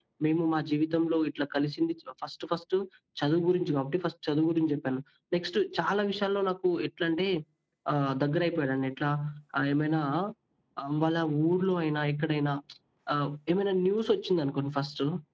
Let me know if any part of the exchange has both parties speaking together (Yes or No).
No